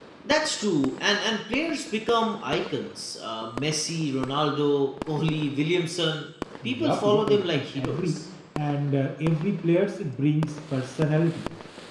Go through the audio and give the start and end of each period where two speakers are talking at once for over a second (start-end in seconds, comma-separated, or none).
6.6-8.2